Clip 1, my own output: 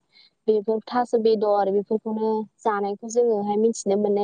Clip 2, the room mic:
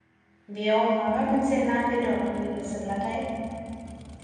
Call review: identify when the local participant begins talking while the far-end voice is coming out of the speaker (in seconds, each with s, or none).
0.6 s